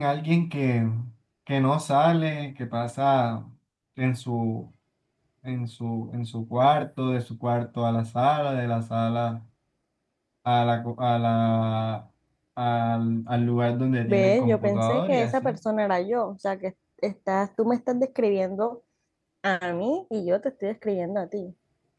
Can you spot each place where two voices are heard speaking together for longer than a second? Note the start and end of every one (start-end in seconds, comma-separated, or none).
14.1-15.6